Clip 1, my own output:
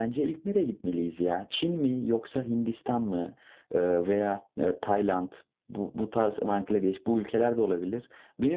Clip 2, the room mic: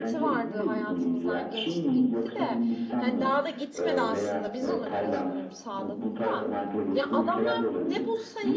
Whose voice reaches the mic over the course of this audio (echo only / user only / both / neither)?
both